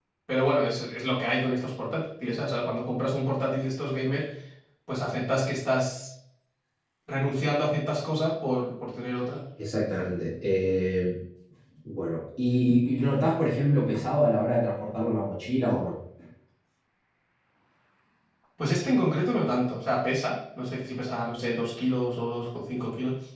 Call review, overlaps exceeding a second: none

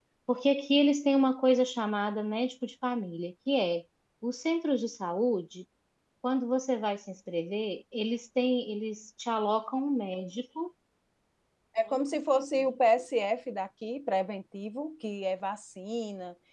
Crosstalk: none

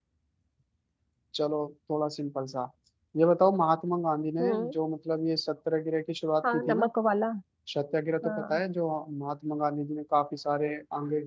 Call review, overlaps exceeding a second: none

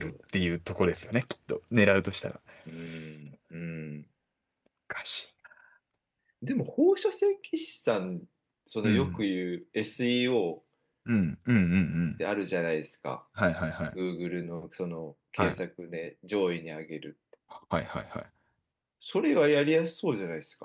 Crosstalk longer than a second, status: none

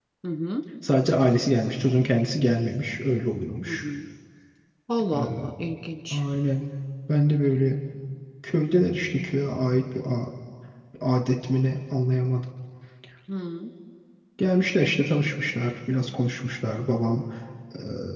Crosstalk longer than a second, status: none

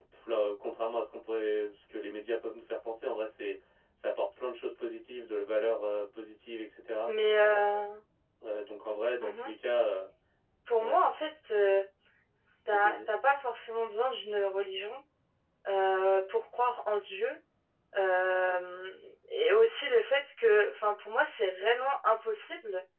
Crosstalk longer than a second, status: none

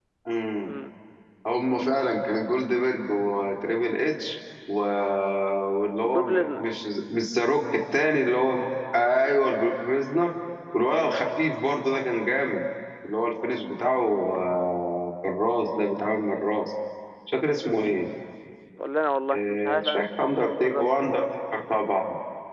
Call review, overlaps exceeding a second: present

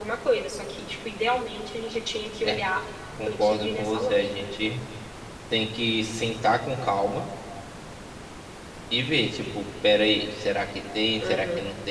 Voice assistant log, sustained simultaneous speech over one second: present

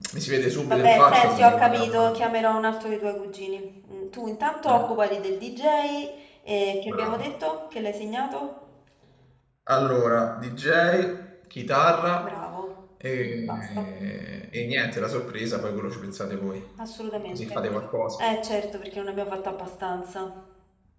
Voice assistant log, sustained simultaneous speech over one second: present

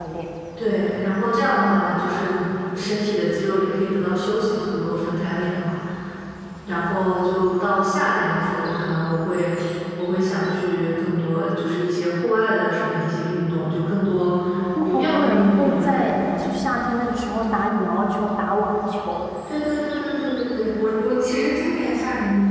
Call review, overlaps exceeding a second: present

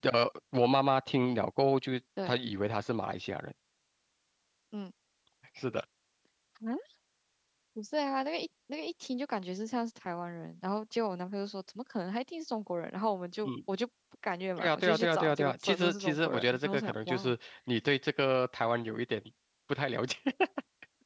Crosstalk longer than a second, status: present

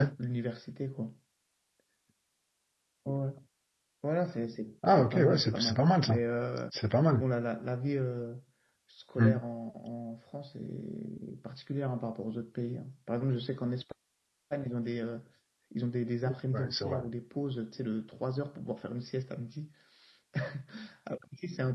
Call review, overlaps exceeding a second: present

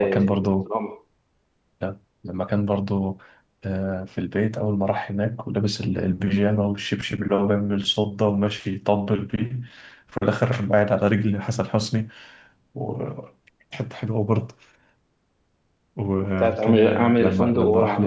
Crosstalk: present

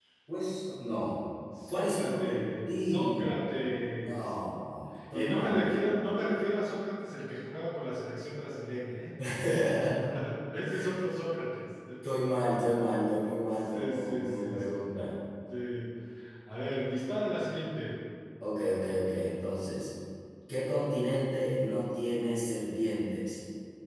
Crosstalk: present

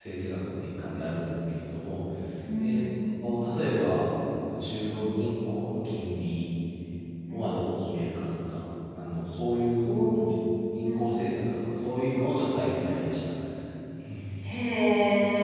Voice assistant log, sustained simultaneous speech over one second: none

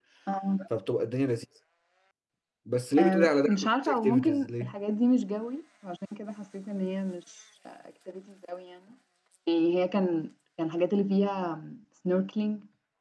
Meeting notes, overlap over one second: present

